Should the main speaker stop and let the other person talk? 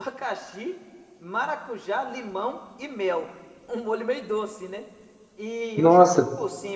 No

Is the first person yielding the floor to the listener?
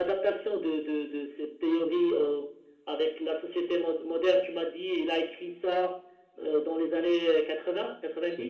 Yes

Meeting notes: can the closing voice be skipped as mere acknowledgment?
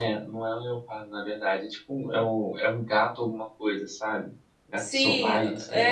No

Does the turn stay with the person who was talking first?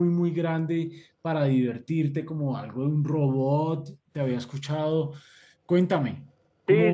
No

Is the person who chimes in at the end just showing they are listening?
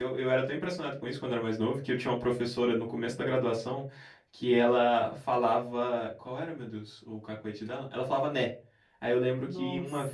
Yes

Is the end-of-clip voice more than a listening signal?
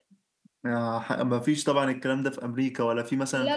Yes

